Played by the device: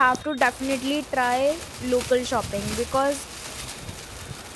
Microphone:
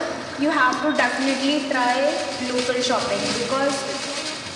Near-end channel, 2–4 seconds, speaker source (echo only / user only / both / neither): both